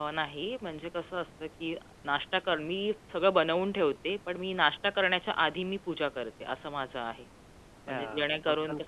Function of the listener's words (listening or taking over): taking over